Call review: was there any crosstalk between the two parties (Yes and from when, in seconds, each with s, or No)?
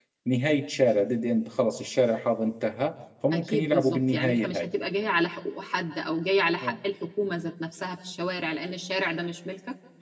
Yes, from 3.3 s